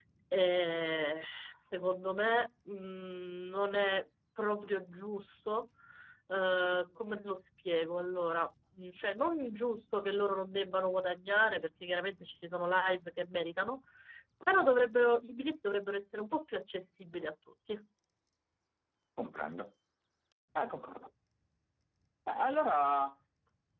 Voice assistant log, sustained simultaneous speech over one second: none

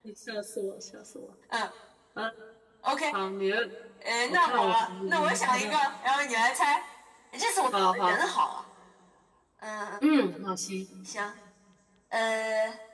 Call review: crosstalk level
present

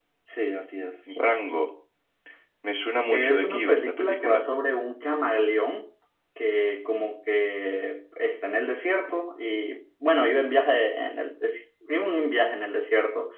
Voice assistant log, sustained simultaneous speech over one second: present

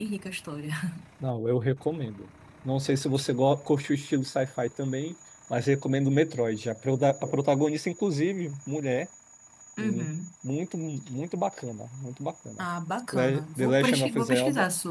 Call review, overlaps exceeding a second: present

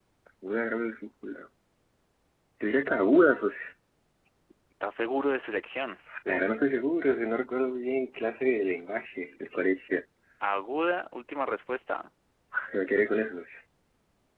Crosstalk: none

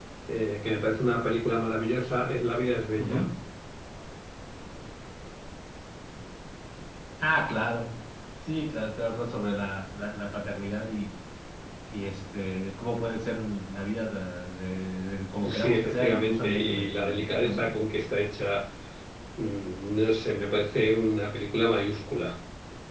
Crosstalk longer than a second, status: present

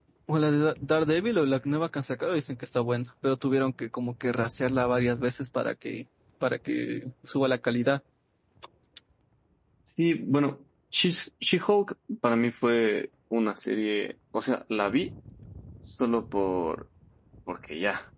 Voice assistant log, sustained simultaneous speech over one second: none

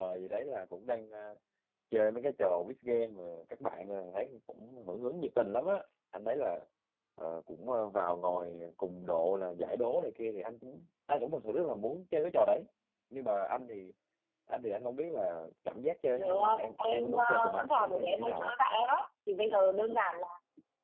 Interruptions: present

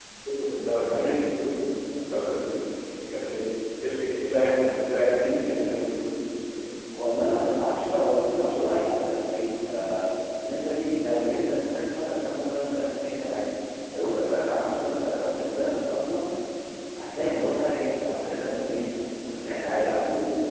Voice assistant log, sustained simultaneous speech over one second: none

